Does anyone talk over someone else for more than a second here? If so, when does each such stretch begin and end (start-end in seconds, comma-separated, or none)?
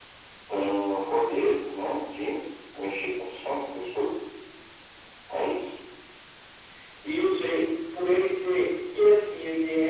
none